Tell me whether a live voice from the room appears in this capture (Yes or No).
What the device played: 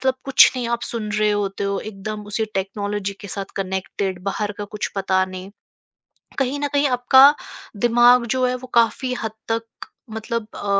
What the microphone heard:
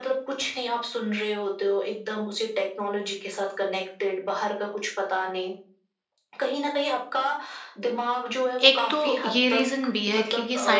Yes